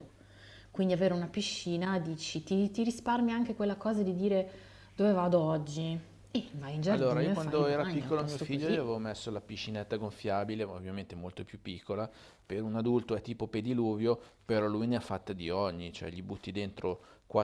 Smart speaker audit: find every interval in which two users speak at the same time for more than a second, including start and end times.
6.9-8.9

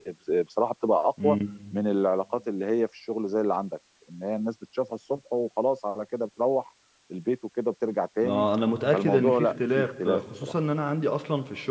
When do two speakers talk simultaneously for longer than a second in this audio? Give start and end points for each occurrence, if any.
8.9-10.5

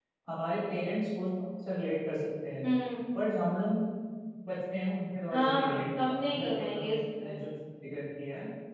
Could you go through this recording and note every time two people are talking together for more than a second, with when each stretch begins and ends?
5.3-7.3

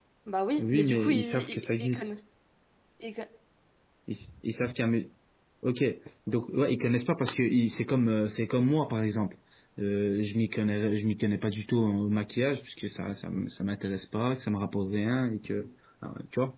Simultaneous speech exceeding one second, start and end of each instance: 0.6-2.1

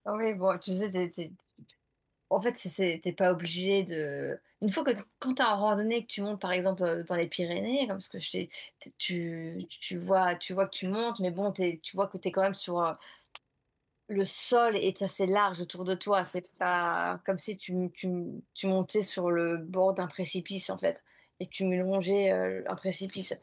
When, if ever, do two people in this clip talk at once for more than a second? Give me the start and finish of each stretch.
none

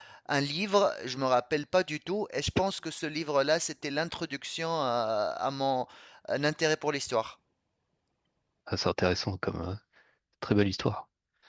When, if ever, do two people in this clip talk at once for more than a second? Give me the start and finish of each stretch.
none

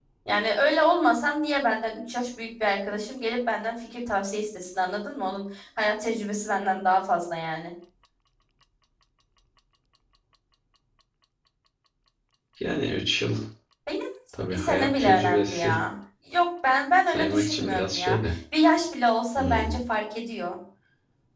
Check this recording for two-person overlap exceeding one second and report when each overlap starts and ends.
14.5-15.7, 17.1-18.3

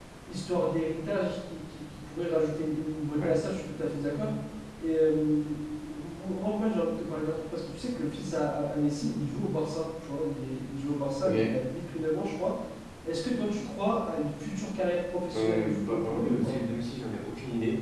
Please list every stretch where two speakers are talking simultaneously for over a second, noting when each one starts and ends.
15.3-16.6

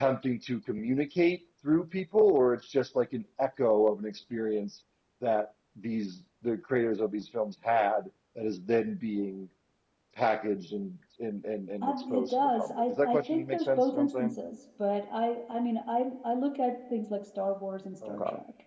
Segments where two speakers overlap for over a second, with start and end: 12.1-14.3

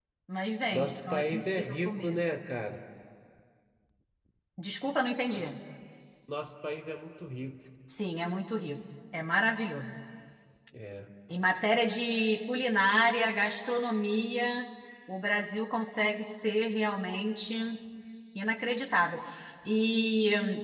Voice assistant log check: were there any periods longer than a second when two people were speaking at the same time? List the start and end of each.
0.7-2.2

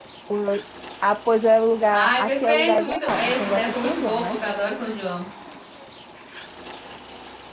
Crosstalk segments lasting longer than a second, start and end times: 1.9-4.4

